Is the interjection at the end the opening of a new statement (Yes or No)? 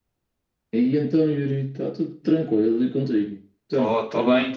Yes